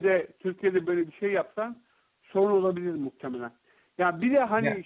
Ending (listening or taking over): listening